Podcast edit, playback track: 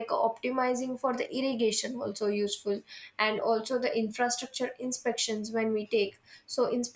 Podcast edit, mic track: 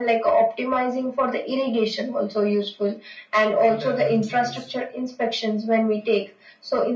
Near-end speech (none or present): present